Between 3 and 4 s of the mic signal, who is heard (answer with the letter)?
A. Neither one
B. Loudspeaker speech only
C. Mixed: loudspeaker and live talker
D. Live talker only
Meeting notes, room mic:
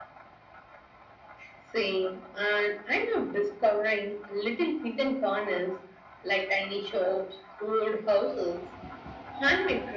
B